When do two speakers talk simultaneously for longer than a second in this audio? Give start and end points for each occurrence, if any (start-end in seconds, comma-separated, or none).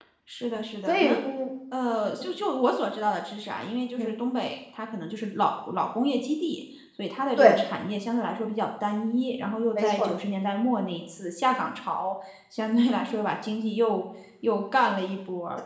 none